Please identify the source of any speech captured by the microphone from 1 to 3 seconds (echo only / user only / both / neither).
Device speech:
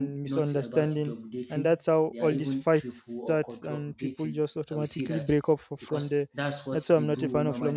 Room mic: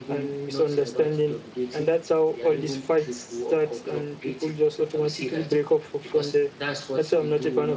echo only